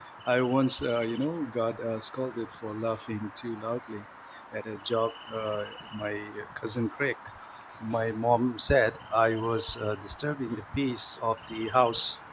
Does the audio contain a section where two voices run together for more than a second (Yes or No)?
No